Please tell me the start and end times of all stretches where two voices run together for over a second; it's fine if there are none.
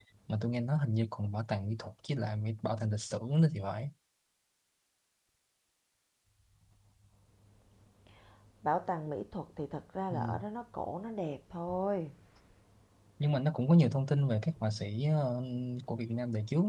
none

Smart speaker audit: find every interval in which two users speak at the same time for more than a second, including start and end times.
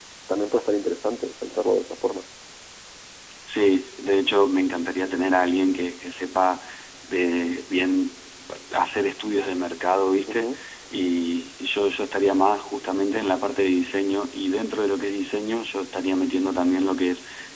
none

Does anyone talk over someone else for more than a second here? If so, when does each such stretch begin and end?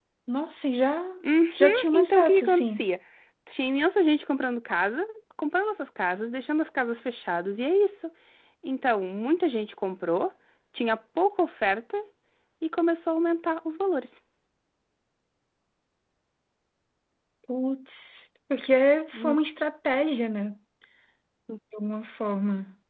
1.5-2.8

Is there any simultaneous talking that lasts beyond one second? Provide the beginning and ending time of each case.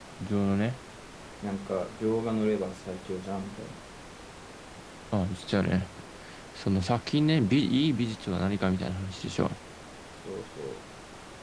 none

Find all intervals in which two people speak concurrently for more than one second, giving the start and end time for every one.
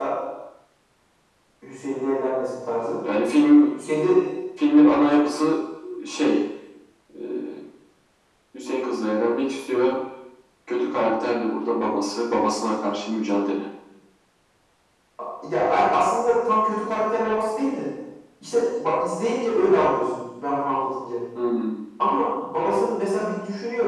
none

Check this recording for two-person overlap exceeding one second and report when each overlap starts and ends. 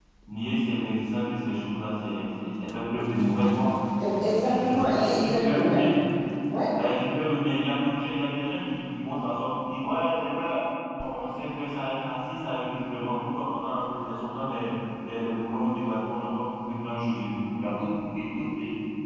4.1-5.8

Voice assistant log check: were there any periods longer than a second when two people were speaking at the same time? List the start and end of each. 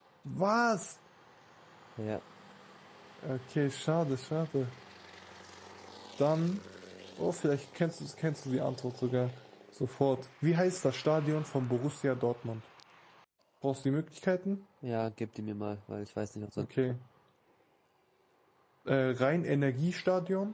none

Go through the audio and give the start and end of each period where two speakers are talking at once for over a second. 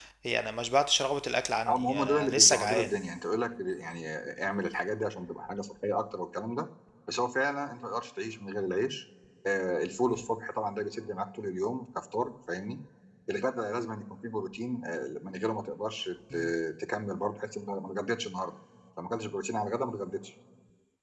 1.7-2.9

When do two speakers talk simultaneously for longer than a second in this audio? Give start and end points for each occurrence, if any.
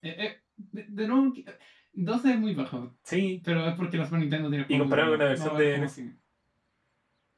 4.7-5.9

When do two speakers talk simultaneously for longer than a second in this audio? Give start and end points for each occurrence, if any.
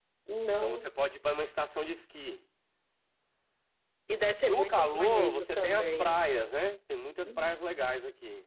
4.5-6.1

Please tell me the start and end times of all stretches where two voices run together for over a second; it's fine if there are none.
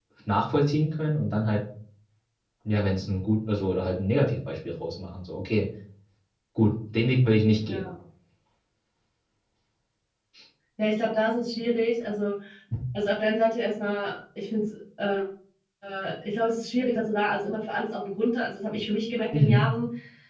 none

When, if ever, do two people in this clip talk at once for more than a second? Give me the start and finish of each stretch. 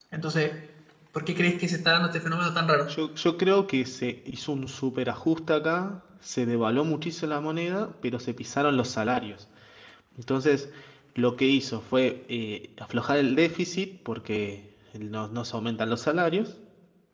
none

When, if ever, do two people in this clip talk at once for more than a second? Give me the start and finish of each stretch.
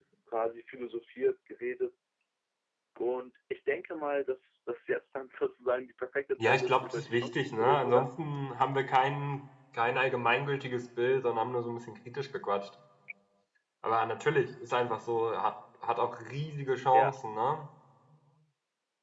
6.4-8.1

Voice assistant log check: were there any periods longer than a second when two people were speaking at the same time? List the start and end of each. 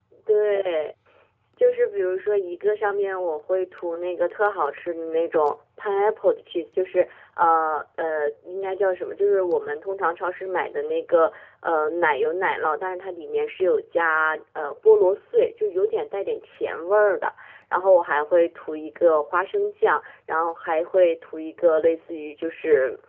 none

